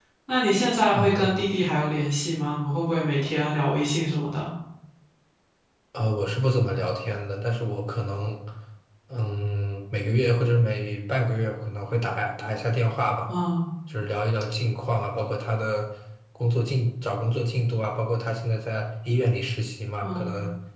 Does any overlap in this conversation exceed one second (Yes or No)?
No